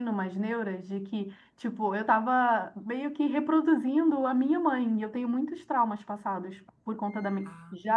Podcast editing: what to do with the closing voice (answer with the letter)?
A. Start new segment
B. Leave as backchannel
B